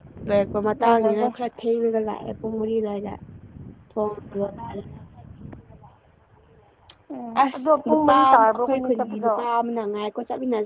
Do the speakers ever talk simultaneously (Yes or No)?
Yes